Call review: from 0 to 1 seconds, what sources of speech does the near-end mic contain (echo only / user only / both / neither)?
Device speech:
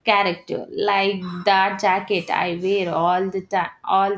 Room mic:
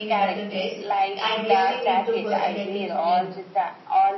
both